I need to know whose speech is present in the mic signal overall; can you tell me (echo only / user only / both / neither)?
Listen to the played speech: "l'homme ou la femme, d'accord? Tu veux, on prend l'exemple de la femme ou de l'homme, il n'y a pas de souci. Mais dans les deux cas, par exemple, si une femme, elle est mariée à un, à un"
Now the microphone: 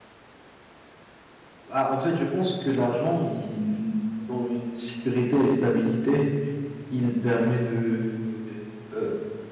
user only